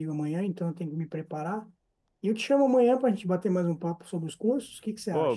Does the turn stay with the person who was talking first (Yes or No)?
No